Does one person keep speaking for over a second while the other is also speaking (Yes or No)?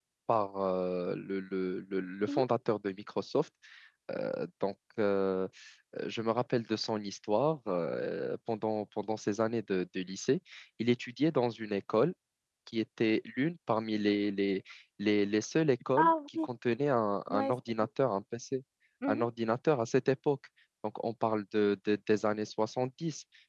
No